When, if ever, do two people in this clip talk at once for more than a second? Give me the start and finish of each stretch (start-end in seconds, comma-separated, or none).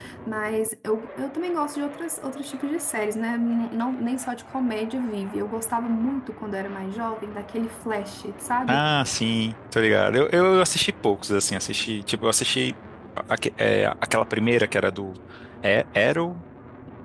none